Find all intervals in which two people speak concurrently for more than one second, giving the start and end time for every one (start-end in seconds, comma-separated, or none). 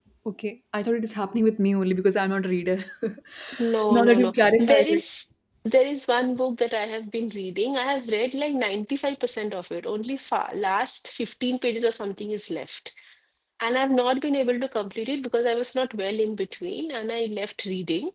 3.6-5.0